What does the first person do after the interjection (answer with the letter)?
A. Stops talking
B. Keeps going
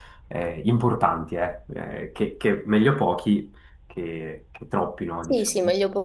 A